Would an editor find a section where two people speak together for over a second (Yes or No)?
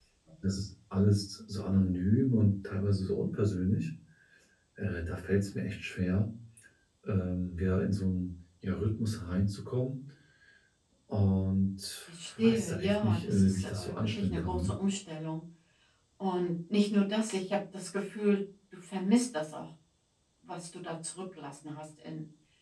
Yes